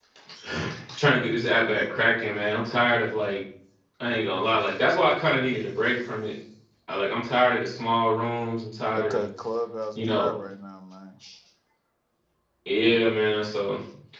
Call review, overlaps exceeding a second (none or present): none